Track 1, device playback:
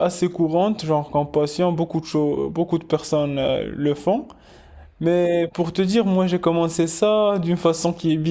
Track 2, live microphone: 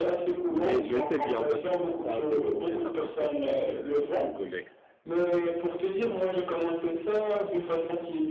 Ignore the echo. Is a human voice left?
Yes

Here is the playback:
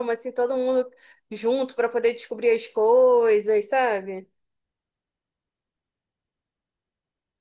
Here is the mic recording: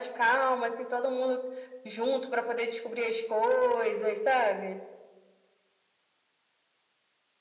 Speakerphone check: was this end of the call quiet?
Yes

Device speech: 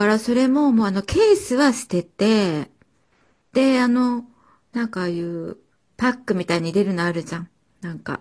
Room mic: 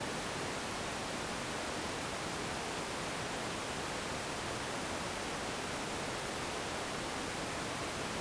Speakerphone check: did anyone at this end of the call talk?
No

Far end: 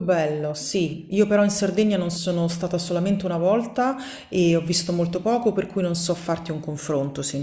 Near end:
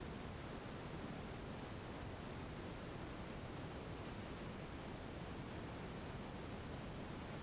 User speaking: No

